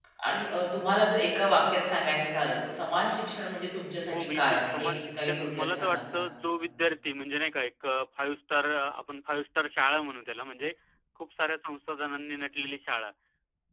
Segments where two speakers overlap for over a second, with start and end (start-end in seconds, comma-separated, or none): 4.1-6.2